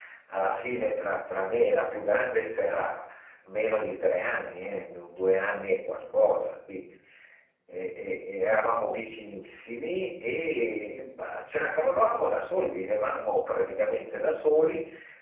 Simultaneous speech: No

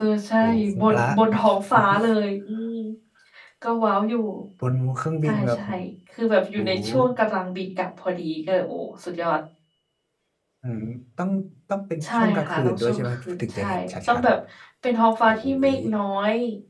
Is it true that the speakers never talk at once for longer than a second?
No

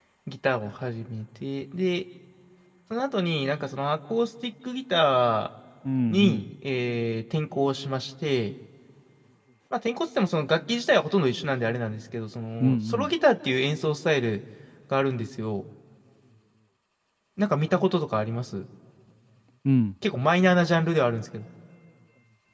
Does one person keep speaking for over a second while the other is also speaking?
No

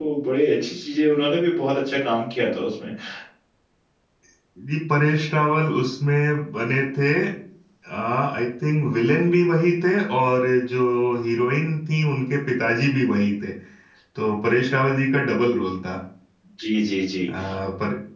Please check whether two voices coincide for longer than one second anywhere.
No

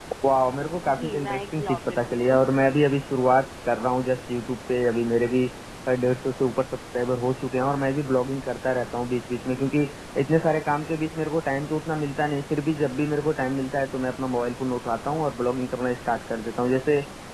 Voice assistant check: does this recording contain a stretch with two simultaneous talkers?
Yes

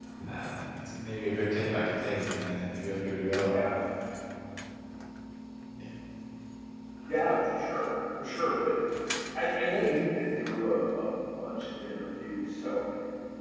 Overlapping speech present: No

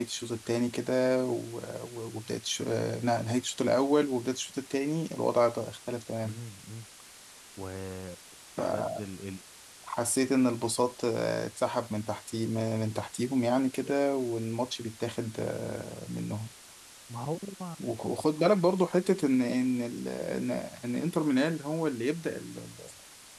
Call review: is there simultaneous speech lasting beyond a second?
No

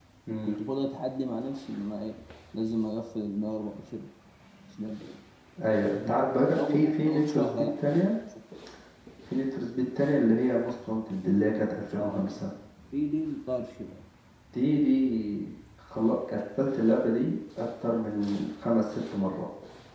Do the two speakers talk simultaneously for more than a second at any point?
Yes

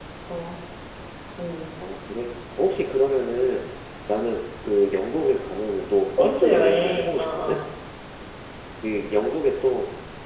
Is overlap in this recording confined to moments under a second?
No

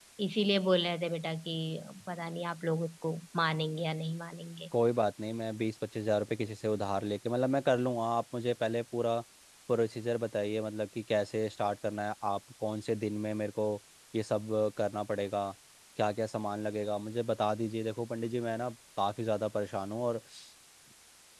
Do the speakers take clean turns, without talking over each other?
Yes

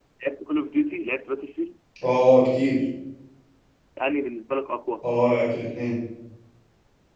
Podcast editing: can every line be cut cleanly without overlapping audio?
Yes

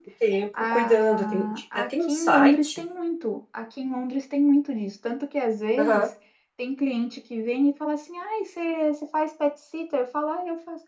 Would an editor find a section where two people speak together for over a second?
Yes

